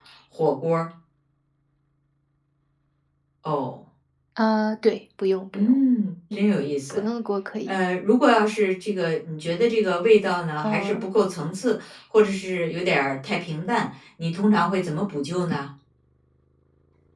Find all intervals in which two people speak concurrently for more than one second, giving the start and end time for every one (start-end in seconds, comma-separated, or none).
none